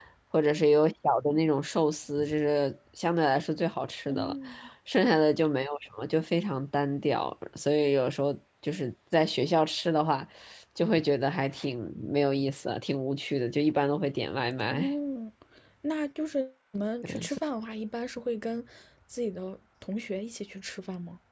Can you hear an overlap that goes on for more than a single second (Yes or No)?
No